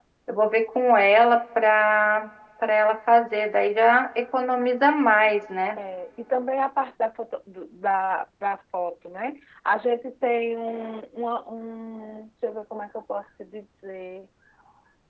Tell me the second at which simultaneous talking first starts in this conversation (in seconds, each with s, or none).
none